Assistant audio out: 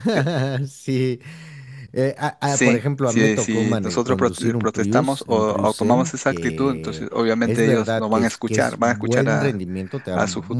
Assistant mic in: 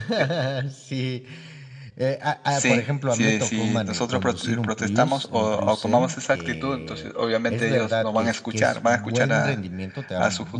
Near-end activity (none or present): none